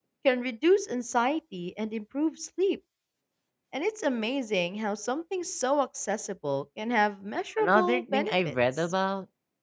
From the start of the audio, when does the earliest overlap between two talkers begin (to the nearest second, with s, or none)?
8 s